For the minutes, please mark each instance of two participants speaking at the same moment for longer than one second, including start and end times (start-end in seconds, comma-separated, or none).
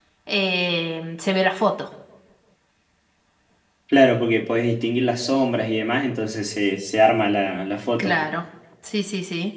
none